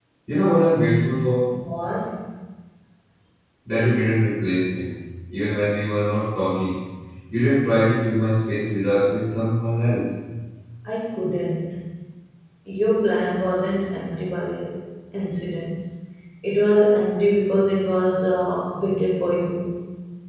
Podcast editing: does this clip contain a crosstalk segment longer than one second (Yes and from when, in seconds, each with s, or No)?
No